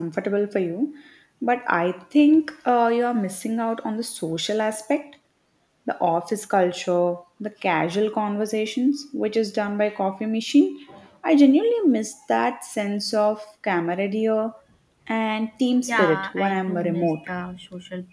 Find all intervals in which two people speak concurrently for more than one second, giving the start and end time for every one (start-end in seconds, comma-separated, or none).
15.9-17.3